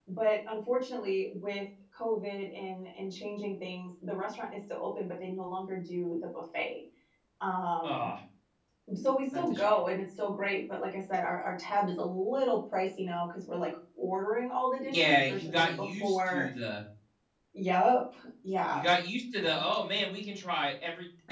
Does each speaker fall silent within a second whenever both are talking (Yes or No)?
No